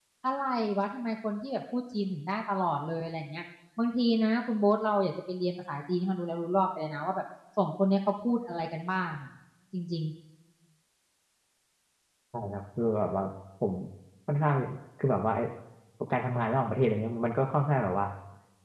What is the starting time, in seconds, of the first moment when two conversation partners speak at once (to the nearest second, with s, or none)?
none